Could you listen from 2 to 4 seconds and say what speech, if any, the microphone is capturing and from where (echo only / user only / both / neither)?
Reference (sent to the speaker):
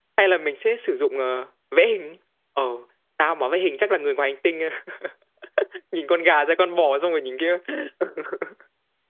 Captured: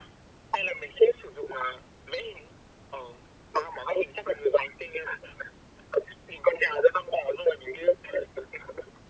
echo only